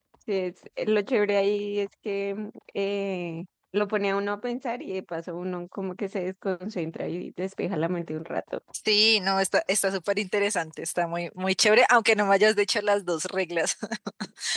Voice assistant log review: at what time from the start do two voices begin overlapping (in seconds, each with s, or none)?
none